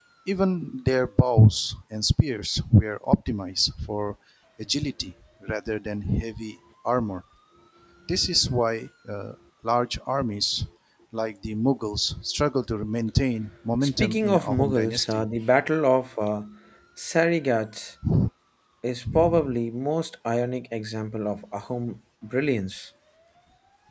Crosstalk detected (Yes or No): Yes